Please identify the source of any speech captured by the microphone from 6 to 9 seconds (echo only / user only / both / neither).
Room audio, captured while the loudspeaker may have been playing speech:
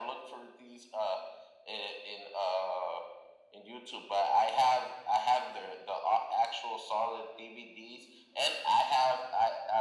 echo only